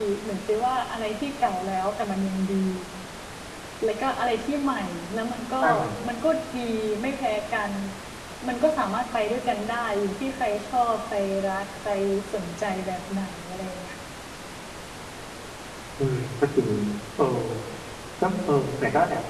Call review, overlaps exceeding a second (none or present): none